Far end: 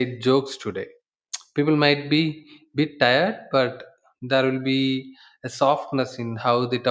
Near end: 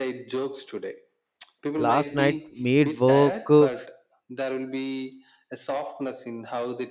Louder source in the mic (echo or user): user